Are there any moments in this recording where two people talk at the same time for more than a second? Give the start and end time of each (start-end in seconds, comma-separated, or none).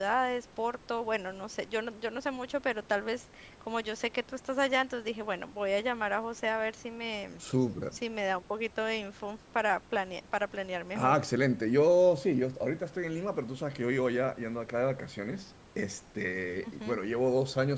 none